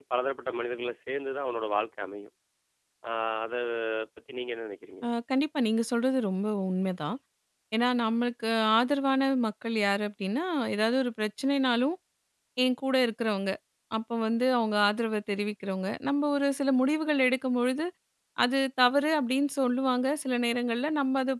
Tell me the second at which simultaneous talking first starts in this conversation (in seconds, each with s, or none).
none